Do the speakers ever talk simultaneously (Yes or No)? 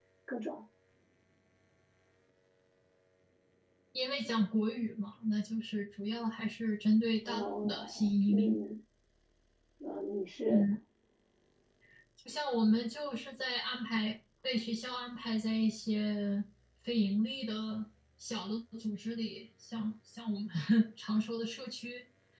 Yes